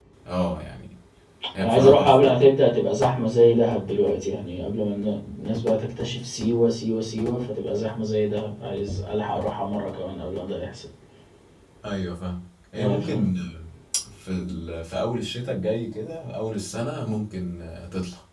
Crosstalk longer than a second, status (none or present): none